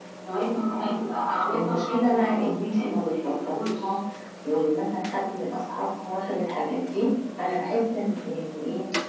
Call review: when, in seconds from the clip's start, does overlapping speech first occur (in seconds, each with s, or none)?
1.3 s